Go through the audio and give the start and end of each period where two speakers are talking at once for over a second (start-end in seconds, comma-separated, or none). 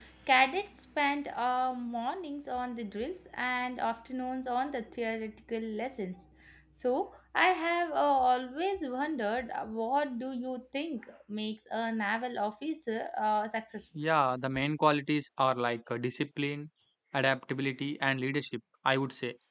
none